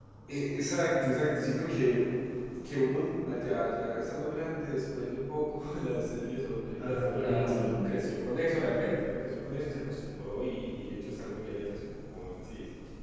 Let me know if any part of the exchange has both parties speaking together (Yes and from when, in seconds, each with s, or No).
Yes, from 6.8 s